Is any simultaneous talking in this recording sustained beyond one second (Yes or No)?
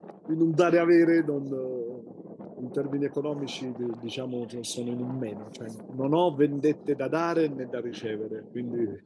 No